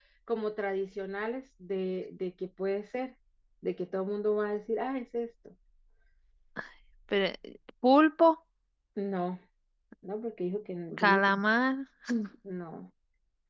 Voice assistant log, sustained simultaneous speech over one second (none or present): none